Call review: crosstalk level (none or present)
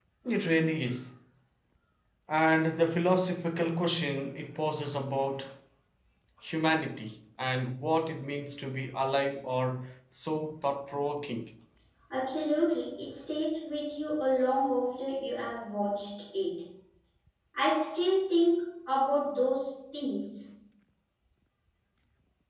none